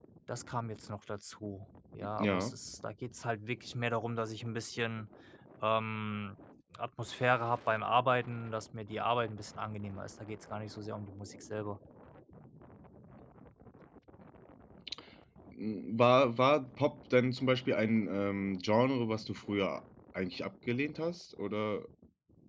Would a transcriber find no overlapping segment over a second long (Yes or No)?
Yes